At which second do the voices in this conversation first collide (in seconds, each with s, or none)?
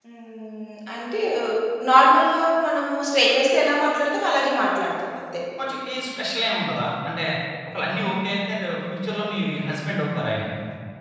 none